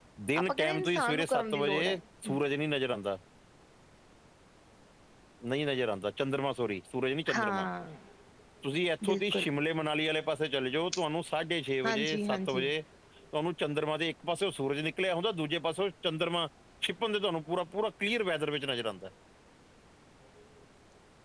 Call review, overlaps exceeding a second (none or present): present